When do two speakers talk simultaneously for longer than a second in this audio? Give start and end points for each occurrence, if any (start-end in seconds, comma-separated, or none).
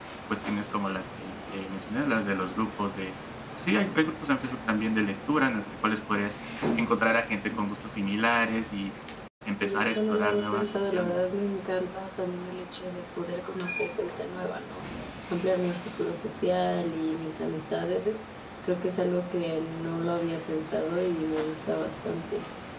9.6-11.1